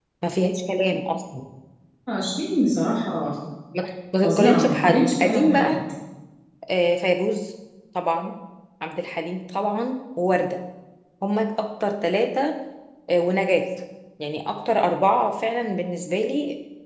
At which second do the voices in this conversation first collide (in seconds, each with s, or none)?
4.2 s